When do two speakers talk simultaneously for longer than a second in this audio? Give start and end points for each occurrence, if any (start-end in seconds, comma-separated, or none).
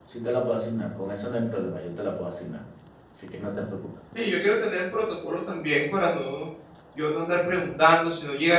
none